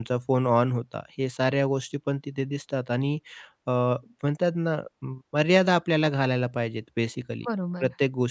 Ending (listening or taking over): taking over